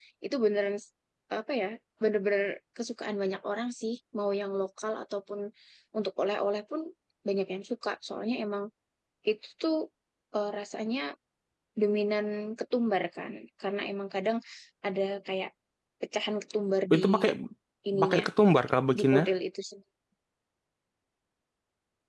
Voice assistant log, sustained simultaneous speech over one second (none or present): none